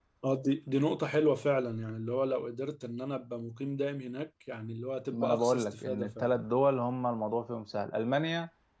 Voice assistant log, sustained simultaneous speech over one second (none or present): present